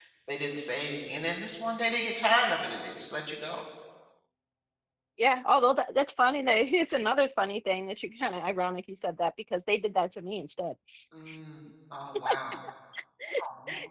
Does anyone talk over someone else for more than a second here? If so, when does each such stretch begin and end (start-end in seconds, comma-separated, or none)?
none